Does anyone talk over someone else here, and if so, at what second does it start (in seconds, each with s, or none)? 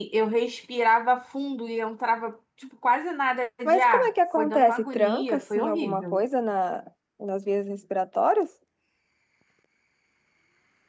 3.6 s